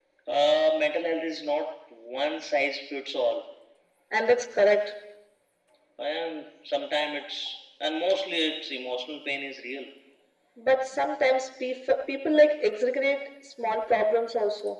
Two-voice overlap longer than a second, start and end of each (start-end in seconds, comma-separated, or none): none